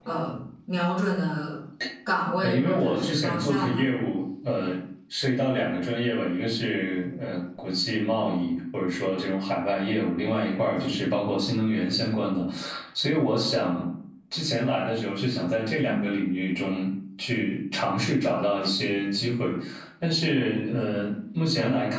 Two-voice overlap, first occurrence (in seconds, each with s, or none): 2.4 s